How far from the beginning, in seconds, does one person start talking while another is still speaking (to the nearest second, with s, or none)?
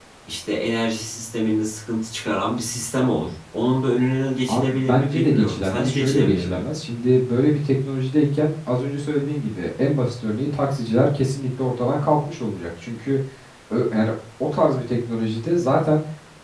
4 s